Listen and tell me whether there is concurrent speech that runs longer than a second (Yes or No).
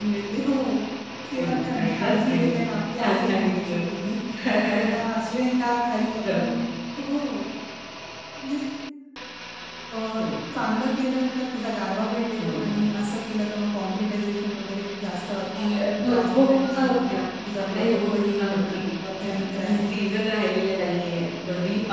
Yes